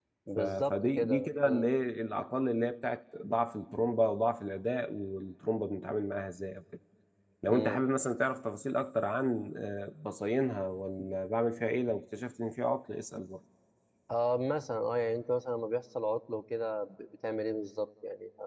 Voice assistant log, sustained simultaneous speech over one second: present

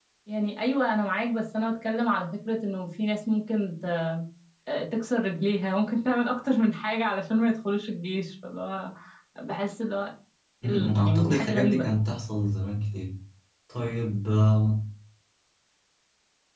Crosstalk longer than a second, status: present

